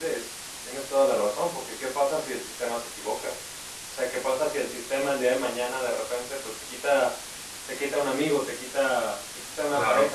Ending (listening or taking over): listening